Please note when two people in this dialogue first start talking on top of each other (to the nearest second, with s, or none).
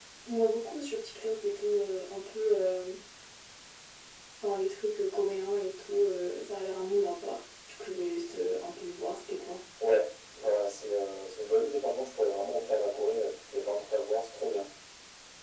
none